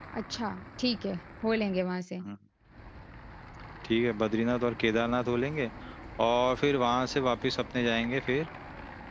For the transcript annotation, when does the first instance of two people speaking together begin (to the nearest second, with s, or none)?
none